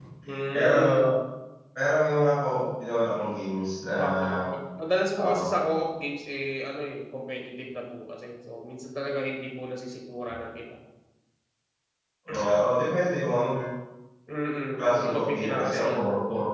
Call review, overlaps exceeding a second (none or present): present